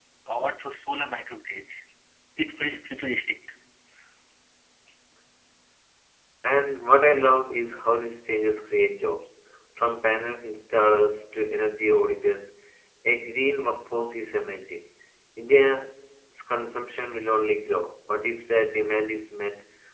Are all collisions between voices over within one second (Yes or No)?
Yes